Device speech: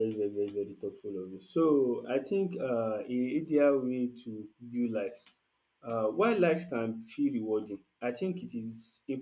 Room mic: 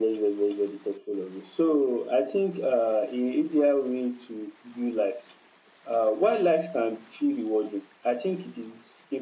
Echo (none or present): present